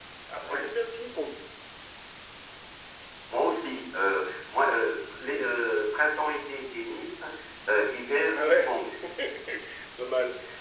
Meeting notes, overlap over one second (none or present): none